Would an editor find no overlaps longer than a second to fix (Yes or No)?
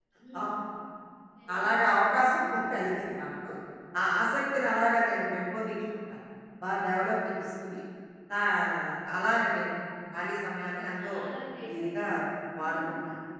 Yes